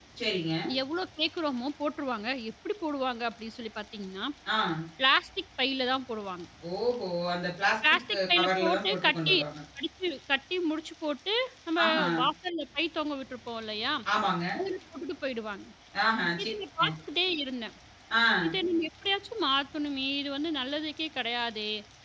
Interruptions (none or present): present